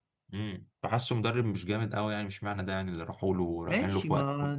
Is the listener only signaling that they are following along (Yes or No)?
No